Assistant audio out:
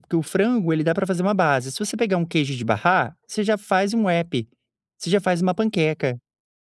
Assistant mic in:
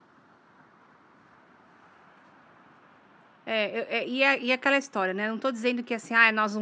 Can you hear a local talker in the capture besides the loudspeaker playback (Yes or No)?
Yes